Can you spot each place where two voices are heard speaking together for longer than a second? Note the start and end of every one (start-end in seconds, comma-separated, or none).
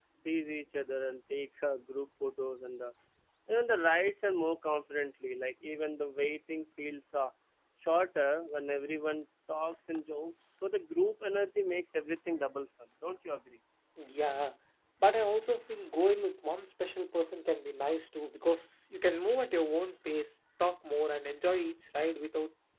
none